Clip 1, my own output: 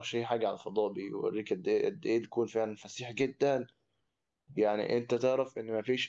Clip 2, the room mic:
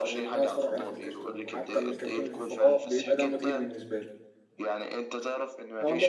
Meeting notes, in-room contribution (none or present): present